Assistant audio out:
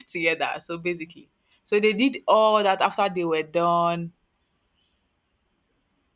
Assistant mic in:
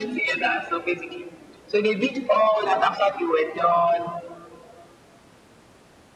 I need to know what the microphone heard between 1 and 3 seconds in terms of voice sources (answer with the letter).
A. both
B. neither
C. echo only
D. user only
C